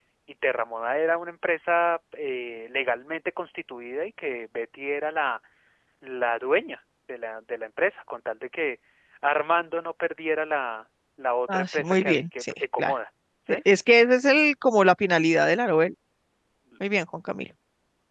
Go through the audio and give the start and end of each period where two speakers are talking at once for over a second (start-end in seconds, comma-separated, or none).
11.5-12.9